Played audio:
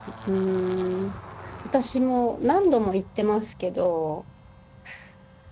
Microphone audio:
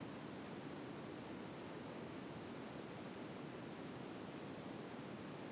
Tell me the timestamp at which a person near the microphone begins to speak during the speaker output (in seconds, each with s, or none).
none